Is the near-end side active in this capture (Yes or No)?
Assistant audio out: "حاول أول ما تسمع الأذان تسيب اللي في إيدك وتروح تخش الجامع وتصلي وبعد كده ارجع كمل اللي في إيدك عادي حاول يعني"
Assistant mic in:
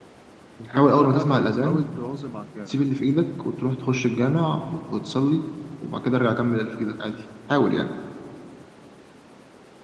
Yes